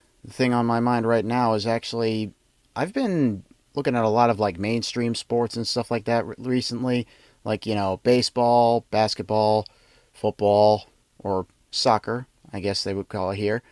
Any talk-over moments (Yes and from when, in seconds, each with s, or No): No